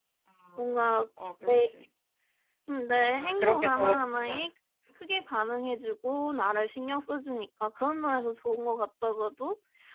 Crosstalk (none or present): present